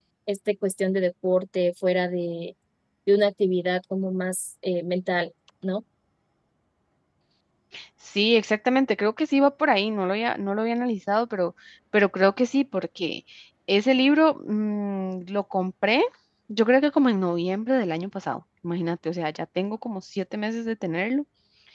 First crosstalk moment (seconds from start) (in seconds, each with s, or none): none